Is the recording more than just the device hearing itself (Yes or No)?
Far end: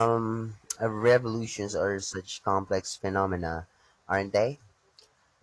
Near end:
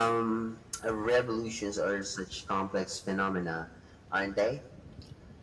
No